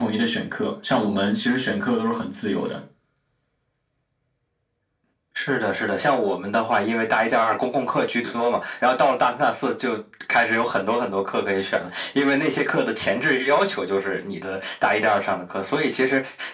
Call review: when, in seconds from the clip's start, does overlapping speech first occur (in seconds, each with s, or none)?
none